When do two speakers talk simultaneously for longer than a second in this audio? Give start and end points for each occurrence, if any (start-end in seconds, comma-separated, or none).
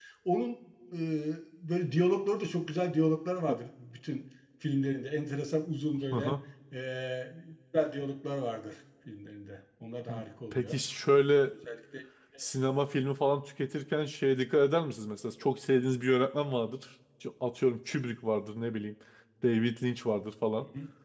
none